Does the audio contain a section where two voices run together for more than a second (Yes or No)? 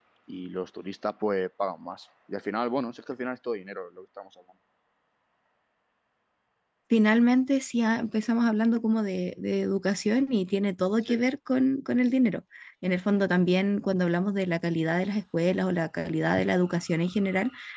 No